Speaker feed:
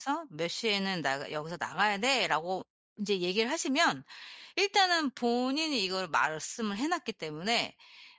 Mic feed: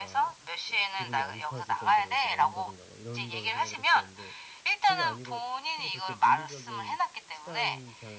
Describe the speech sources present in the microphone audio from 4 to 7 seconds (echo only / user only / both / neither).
both